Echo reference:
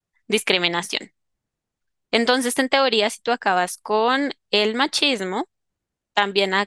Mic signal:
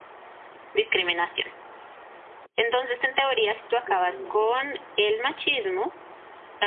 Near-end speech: present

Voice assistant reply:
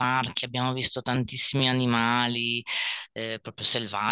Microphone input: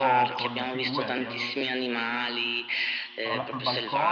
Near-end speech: present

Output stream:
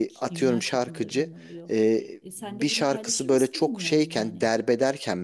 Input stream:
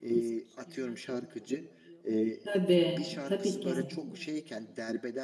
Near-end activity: present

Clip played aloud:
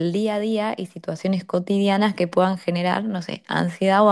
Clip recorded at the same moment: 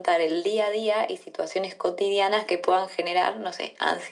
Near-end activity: none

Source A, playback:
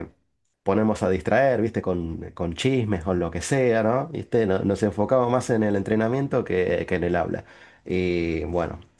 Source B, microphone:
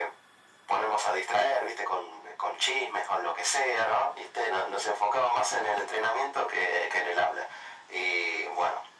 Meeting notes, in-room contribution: none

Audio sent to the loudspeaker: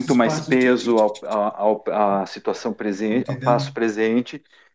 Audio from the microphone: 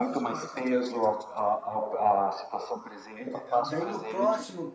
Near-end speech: present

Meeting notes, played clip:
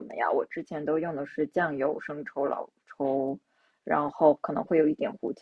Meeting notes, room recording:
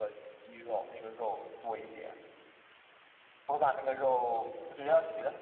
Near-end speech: present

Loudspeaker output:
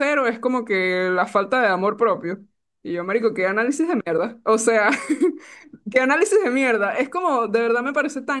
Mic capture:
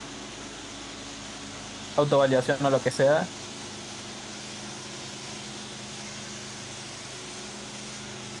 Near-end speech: present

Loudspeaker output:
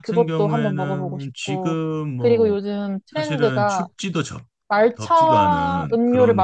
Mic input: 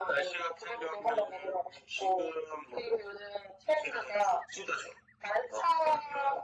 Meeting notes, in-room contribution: none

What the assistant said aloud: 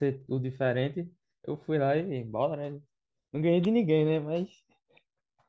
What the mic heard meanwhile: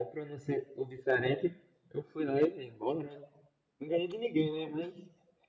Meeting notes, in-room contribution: none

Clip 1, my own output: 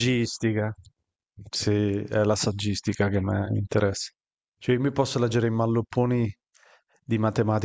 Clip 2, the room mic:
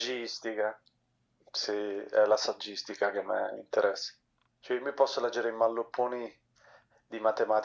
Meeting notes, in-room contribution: none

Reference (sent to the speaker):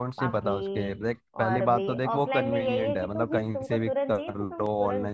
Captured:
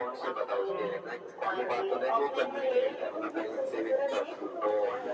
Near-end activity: present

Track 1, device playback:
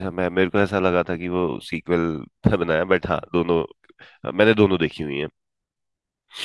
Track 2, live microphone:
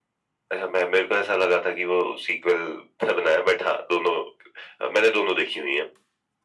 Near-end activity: none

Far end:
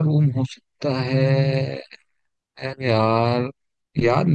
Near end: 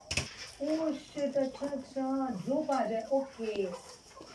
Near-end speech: present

